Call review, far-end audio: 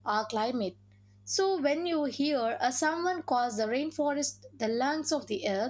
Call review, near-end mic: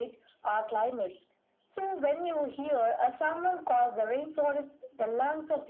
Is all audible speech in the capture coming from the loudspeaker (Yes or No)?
Yes